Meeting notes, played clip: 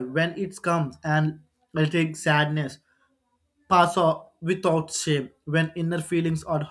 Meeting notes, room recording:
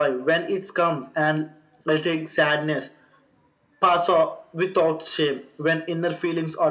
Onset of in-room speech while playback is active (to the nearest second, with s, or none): none